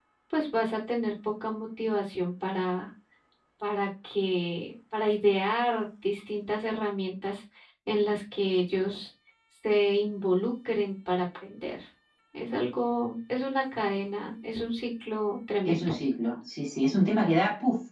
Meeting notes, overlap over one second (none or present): none